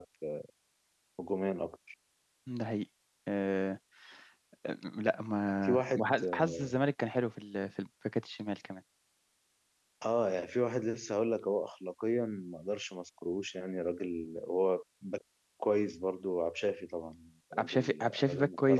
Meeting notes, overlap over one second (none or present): present